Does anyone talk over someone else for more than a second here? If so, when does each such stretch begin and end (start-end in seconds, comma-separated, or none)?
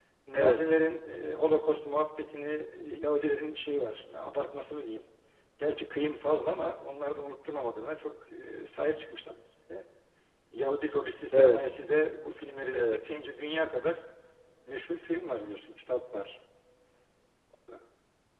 none